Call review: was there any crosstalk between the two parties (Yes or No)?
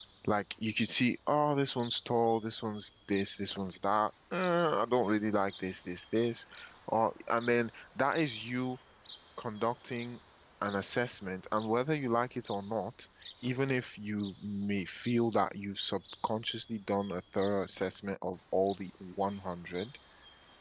No